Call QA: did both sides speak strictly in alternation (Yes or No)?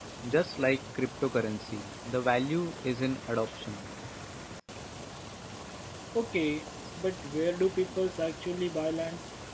Yes